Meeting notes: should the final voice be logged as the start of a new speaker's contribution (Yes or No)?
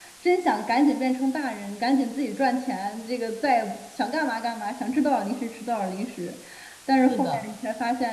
No